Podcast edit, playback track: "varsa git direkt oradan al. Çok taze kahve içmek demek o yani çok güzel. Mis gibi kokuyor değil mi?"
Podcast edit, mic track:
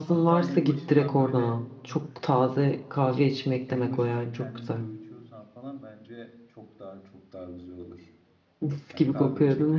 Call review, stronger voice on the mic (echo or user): echo